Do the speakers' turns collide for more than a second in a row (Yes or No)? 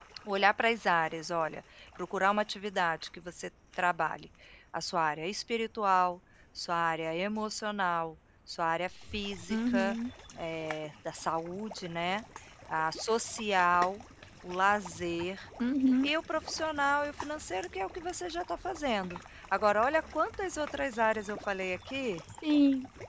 No